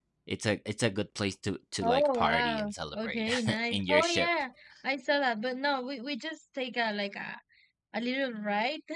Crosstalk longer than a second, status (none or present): present